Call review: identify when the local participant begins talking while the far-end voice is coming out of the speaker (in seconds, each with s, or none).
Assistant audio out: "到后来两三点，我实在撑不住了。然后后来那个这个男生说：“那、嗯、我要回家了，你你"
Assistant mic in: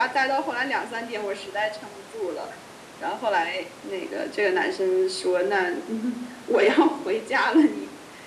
none